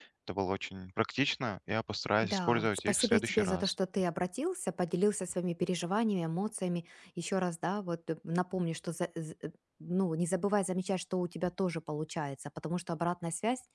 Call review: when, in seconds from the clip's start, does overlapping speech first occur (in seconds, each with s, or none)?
2.2 s